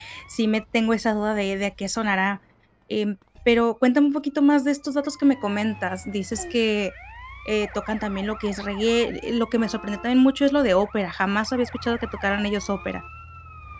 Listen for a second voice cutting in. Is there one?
No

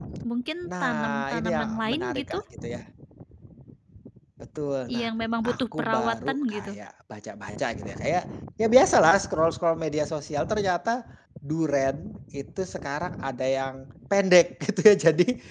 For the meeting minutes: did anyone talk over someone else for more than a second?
Yes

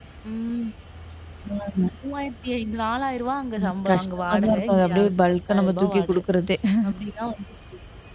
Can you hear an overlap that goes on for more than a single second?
Yes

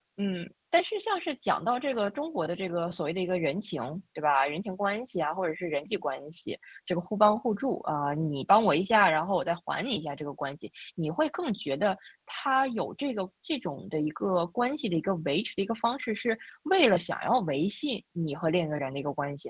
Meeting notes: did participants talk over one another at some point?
No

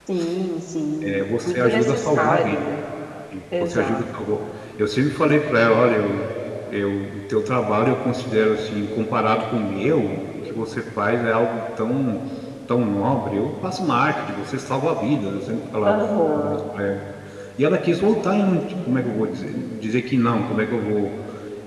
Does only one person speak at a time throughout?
No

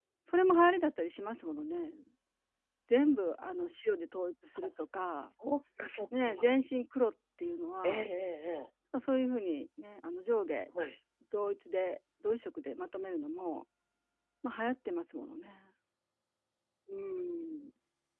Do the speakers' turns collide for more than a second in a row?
No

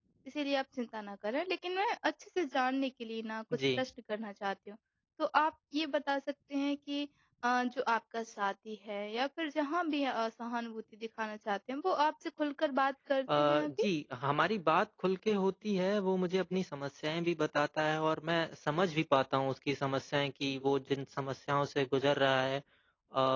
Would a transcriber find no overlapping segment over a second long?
Yes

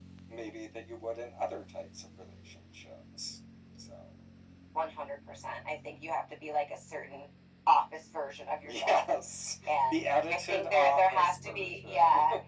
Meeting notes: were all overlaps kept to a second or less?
No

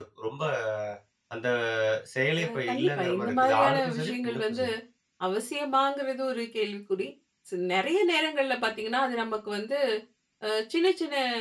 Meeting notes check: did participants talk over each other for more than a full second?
Yes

